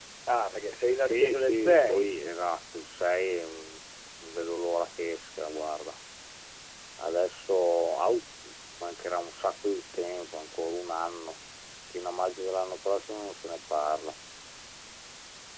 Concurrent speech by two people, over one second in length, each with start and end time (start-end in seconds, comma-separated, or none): 0.9-2.1